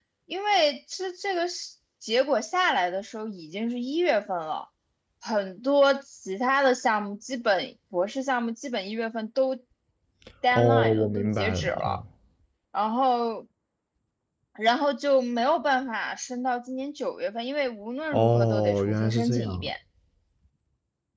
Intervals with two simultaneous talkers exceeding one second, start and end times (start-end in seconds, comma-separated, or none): 10.5-12.0, 18.1-19.7